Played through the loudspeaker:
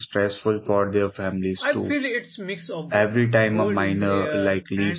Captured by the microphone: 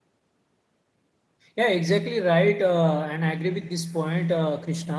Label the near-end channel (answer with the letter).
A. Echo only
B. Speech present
B